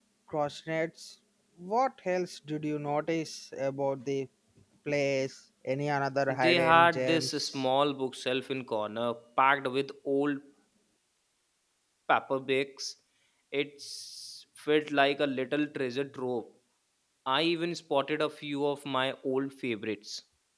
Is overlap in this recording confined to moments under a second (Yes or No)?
No